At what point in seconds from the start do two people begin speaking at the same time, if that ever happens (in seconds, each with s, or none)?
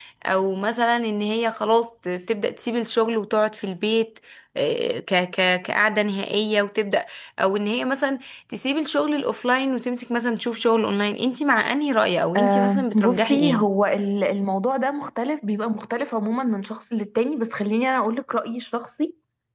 12.3 s